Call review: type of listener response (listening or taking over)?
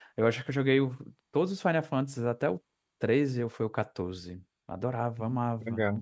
taking over